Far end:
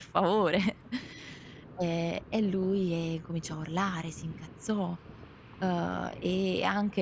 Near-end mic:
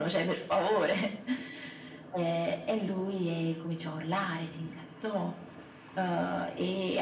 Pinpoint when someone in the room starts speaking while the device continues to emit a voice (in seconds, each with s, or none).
none